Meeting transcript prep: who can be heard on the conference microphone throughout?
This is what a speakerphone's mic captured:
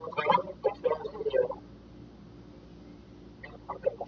echo only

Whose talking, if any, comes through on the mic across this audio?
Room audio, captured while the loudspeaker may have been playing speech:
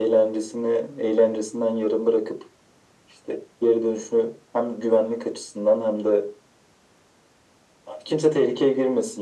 echo only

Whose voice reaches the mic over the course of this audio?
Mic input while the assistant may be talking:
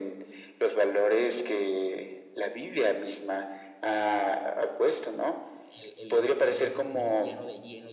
both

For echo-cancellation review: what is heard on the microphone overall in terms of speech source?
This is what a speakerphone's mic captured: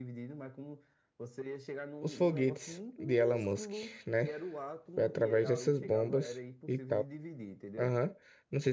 both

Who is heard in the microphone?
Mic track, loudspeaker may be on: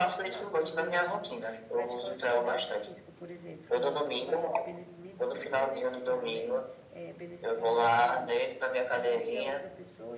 both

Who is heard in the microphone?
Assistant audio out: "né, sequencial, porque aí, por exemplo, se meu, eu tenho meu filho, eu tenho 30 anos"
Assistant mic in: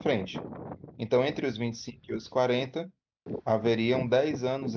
user only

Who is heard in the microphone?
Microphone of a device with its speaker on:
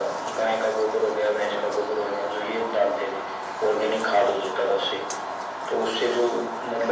echo only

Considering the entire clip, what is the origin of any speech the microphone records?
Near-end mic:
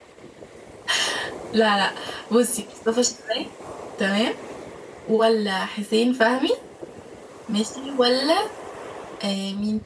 user only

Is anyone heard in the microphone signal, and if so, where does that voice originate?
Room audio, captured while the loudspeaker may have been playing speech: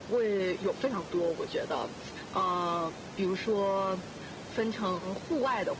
echo only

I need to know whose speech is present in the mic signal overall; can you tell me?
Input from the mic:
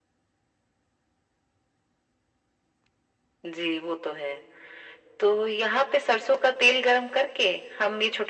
echo only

